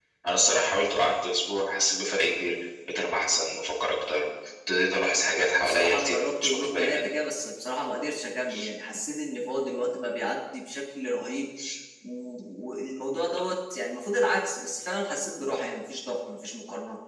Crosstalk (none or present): present